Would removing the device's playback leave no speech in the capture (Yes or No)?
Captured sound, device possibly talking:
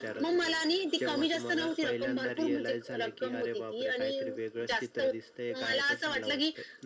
Yes